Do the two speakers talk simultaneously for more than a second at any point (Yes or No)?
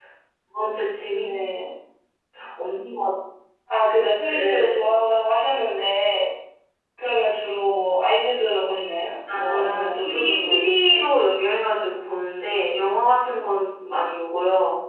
Yes